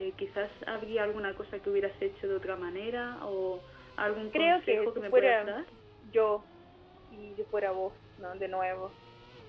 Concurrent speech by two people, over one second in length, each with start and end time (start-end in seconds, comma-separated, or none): 4.3-5.5